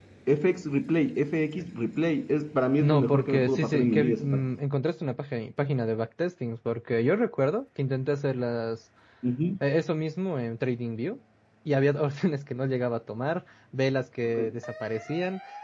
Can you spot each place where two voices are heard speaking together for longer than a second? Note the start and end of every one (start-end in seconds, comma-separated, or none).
2.8-4.5